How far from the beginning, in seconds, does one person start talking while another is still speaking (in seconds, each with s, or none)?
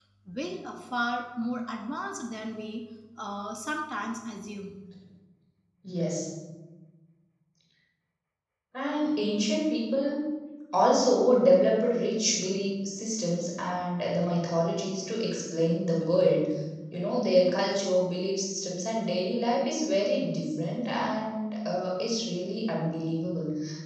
none